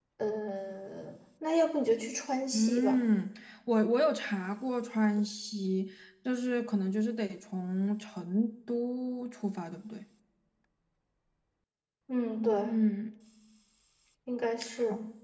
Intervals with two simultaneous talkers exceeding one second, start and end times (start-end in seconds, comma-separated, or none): none